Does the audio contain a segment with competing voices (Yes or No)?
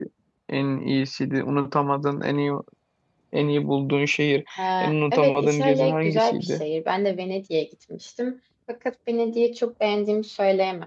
Yes